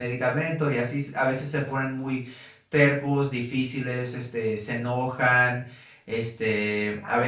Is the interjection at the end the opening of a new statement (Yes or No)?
Yes